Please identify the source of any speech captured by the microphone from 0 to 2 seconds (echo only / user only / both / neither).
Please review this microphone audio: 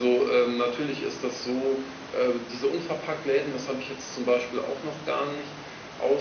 echo only